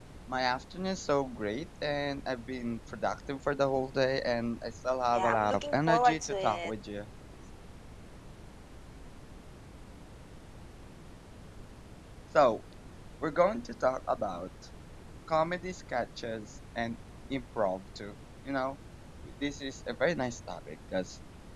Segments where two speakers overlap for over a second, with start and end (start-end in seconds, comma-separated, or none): 5.1-6.7